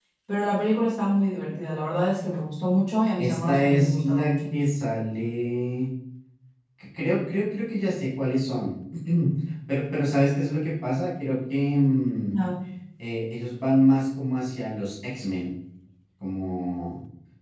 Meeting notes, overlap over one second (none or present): present